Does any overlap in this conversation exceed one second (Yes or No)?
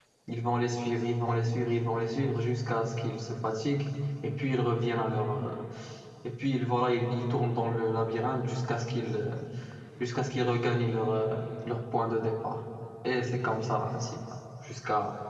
No